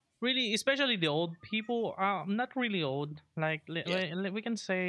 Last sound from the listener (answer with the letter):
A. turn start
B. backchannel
B